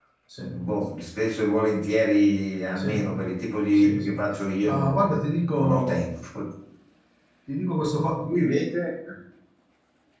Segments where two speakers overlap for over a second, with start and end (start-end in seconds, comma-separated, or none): 4.6-6.0